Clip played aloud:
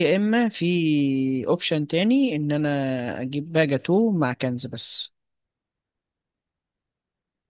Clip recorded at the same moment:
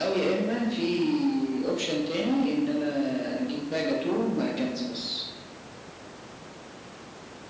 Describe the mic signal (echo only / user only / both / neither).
echo only